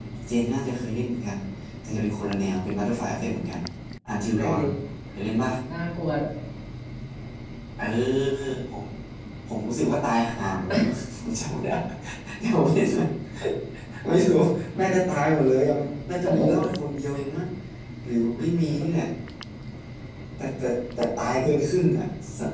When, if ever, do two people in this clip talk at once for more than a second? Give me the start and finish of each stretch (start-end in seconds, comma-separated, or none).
none